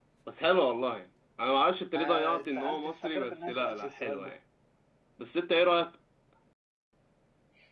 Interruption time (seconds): 1.9 s

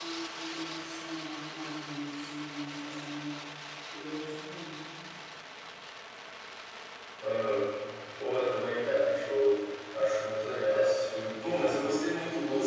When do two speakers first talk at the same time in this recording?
none

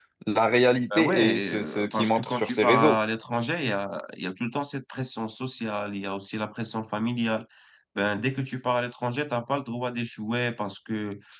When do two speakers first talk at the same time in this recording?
1.0 s

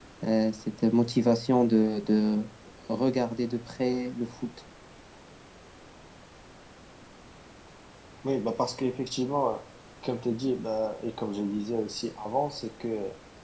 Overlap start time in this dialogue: none

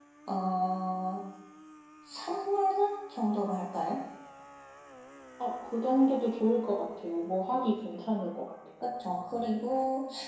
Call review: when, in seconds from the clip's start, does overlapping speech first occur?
none

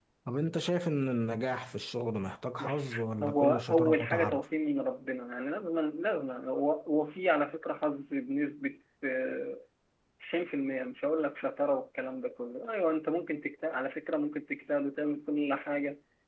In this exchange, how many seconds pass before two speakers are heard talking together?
2.6 s

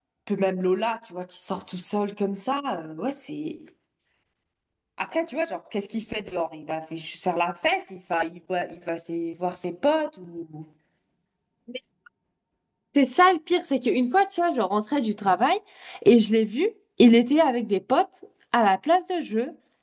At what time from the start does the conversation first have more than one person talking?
none

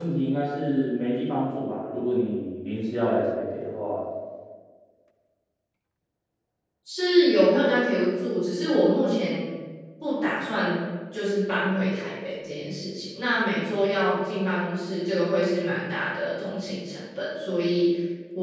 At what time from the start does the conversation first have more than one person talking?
none

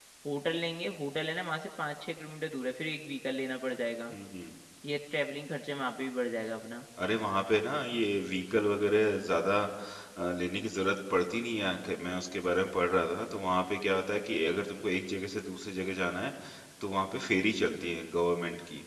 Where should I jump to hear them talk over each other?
none

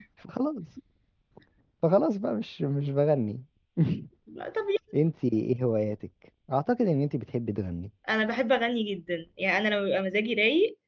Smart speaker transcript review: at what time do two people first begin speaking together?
none

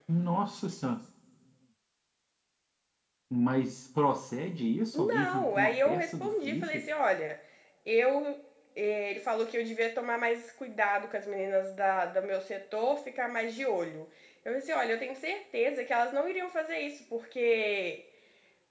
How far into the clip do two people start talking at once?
4.9 s

